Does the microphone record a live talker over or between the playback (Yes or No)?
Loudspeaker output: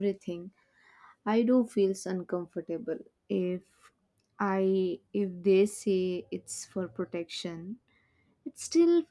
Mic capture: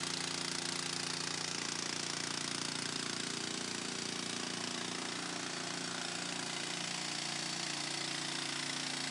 No